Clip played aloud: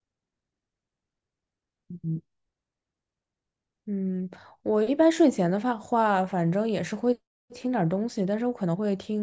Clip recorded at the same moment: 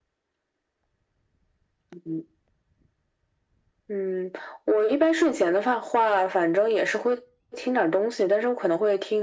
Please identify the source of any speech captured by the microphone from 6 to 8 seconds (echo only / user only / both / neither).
echo only